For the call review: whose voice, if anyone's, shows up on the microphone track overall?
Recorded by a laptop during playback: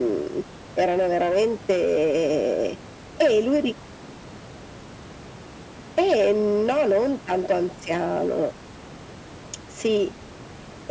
echo only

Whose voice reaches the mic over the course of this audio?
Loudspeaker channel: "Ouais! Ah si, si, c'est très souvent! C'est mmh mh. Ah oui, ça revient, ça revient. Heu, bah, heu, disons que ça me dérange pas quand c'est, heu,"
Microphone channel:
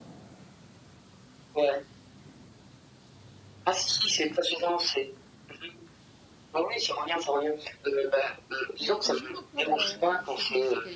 both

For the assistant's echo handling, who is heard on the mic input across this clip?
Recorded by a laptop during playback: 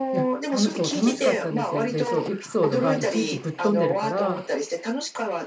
both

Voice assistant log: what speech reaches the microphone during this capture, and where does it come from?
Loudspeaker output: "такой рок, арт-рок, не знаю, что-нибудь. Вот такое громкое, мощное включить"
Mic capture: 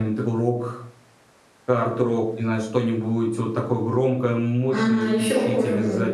both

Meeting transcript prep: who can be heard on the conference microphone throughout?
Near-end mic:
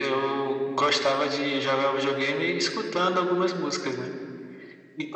echo only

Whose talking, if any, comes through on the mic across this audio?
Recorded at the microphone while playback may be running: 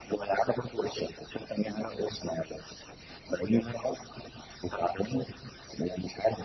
echo only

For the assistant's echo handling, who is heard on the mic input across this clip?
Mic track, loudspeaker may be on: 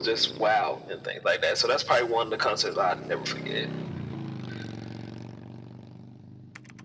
echo only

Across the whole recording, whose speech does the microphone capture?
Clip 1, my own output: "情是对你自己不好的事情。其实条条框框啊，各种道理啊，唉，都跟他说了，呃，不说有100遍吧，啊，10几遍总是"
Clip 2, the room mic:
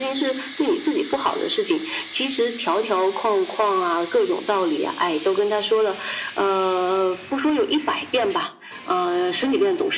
echo only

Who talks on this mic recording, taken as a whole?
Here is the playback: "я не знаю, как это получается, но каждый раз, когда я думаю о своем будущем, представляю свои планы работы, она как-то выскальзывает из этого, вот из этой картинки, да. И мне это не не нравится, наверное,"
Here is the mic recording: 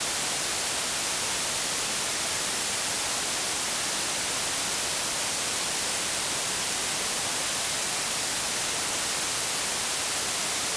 neither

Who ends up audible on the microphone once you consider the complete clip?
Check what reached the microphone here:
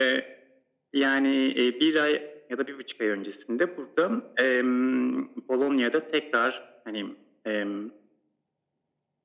echo only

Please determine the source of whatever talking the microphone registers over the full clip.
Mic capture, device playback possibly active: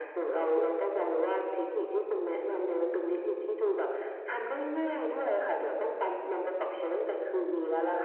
echo only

